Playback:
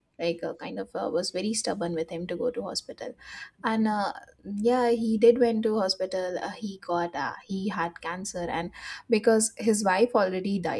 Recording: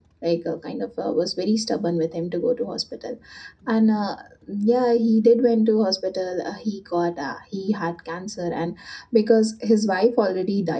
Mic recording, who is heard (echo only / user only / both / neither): echo only